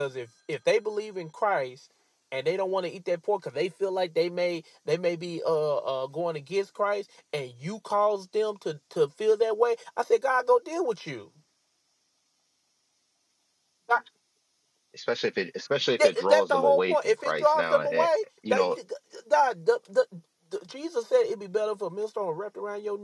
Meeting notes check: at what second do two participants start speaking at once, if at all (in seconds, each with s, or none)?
16.0 s